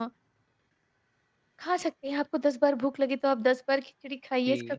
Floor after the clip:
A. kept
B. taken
B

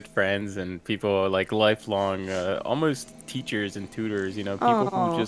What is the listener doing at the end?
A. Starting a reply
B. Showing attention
B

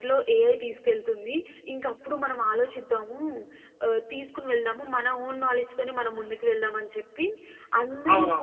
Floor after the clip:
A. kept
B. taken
A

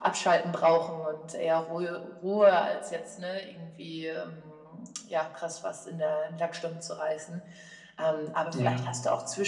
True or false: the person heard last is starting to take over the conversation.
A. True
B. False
B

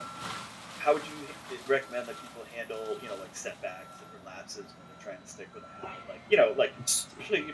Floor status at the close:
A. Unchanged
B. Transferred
A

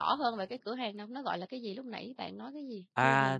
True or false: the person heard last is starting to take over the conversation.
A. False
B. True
B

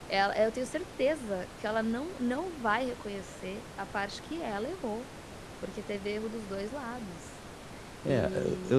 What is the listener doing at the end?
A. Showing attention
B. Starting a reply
B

